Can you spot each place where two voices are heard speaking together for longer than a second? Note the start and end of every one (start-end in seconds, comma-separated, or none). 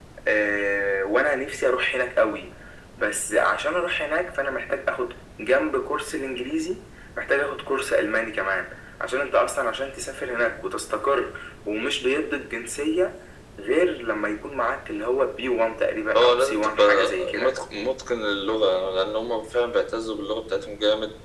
16.1-17.5